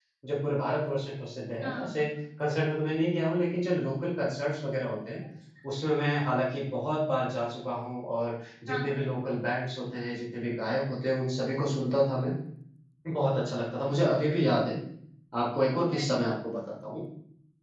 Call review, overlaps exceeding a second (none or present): none